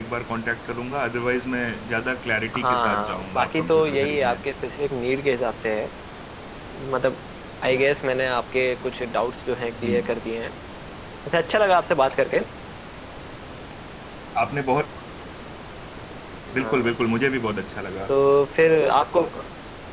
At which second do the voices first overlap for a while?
3 s

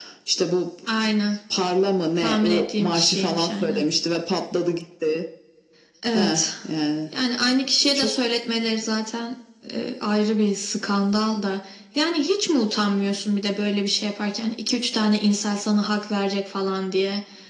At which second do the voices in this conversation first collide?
2 s

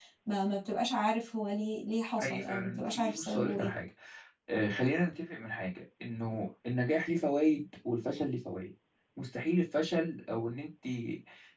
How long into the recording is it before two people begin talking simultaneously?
2 s

